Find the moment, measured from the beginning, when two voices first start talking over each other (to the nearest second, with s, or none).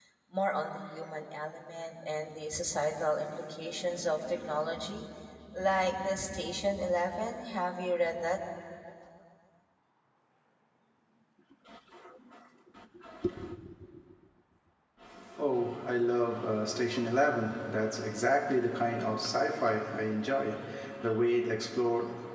none